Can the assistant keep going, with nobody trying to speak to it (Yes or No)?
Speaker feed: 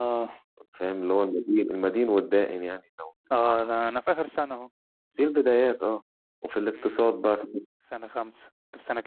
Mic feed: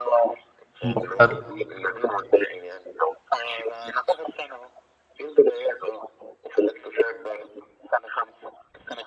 No